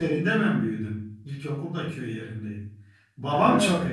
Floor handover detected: No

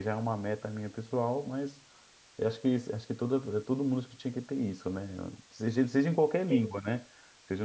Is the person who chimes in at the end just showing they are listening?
Yes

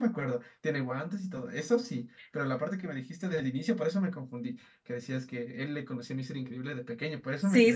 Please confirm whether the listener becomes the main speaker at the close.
Yes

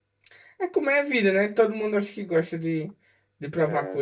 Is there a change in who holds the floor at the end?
Yes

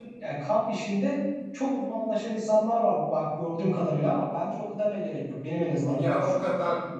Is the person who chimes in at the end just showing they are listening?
No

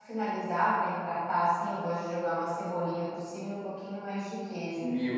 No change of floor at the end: No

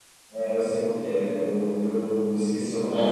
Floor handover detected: Yes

